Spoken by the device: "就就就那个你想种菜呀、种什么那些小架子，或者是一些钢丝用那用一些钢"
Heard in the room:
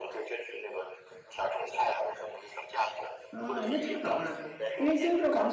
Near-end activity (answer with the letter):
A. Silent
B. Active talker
B